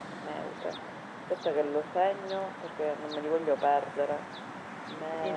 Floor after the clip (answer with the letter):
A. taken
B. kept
A